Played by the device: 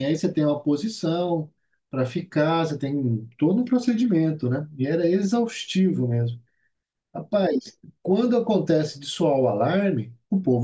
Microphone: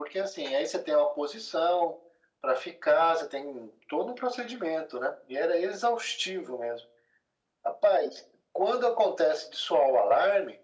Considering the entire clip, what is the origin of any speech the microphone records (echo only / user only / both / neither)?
echo only